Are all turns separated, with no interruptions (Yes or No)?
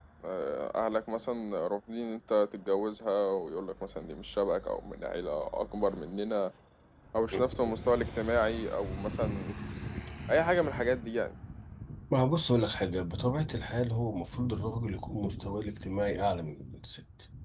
Yes